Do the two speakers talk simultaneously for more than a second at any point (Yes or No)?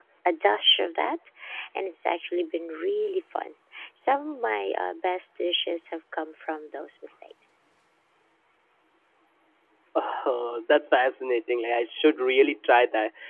No